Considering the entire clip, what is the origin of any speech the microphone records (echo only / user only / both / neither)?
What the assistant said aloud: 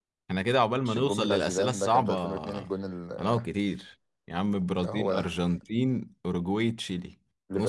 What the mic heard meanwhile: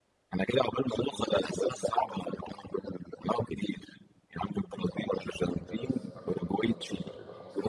both